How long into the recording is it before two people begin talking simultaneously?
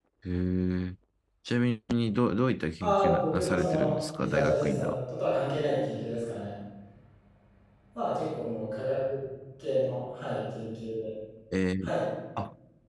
2.8 s

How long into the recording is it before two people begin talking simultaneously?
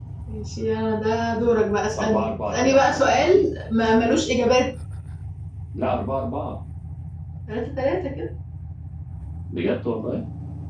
1.9 s

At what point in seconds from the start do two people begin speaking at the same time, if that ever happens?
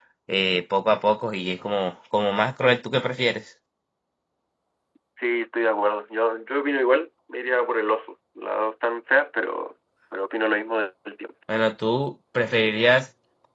none

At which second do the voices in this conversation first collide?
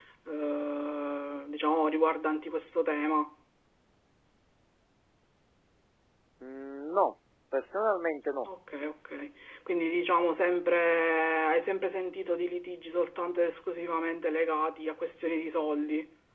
none

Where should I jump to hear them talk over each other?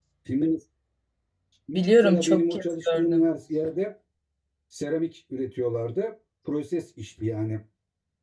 2.0 s

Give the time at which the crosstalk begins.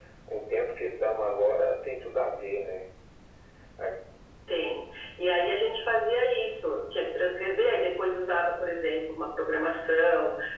none

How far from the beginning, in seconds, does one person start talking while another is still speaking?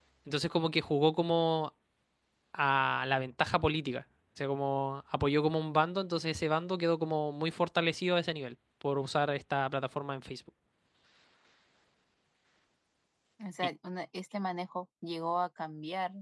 none

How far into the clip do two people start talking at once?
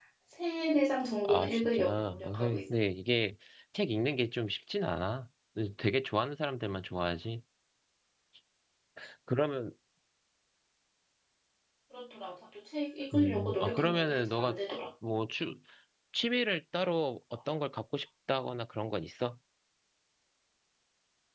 1.2 s

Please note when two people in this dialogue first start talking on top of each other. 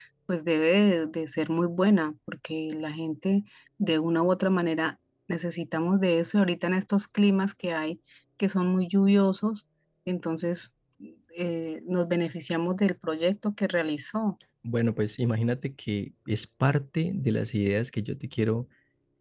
none

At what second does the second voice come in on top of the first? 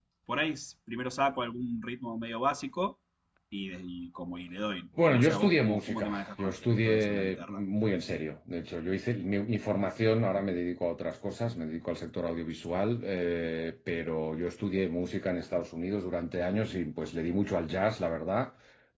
5.0 s

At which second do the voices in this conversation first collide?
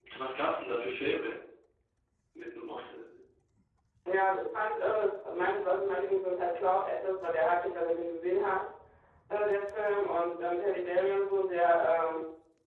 none

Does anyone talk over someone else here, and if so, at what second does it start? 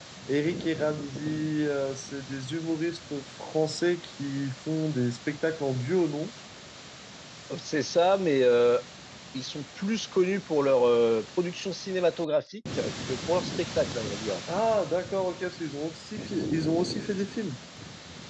none

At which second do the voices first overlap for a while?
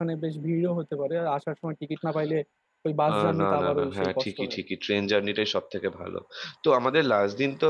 3.1 s

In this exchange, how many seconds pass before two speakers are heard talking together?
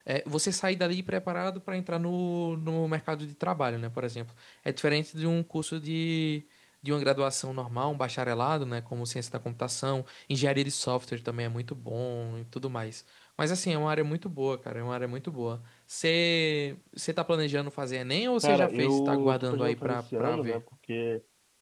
18.4 s

